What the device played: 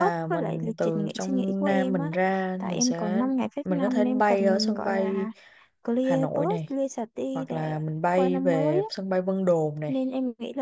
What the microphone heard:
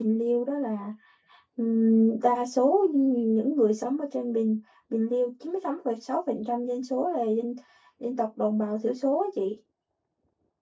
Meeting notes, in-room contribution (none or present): present